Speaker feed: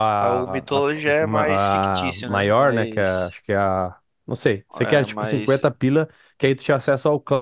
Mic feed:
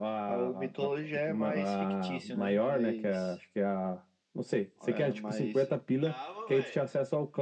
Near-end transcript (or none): dava, velho.